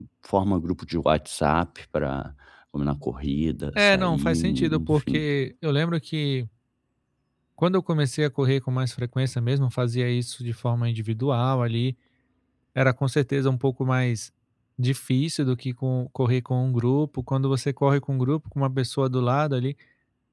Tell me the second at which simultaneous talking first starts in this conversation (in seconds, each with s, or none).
3.8 s